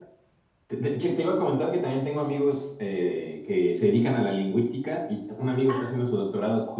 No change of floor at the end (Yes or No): Yes